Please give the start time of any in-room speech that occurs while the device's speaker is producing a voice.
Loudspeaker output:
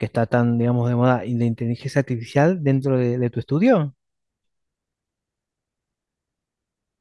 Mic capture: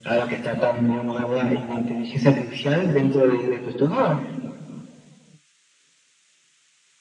none

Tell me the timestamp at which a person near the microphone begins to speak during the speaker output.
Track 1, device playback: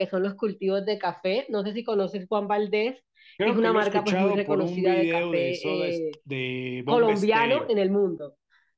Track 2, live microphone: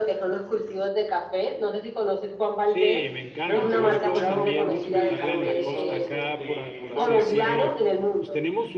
3 s

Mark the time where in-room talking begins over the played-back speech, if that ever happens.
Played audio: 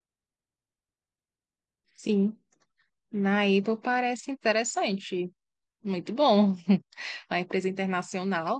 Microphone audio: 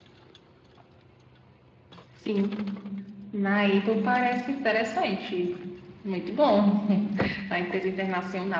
none

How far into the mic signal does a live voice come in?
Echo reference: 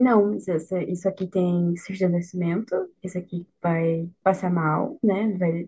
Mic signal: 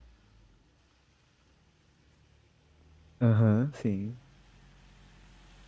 3 s

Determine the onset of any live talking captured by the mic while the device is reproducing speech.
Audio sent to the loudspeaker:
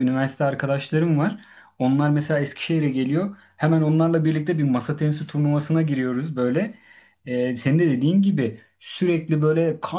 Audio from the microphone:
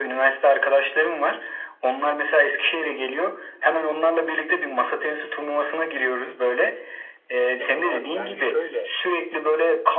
8 s

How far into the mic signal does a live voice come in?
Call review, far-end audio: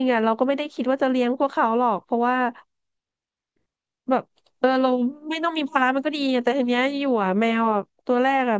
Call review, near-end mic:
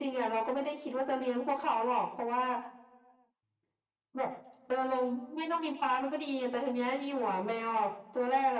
none

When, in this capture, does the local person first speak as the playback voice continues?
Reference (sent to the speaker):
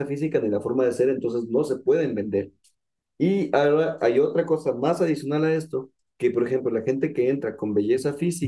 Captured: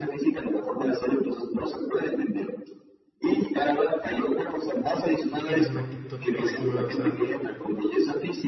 5 s

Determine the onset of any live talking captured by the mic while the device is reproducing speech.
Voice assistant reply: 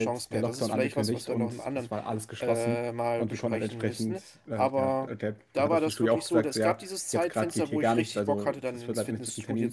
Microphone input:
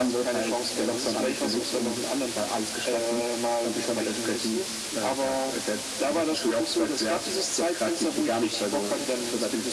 none

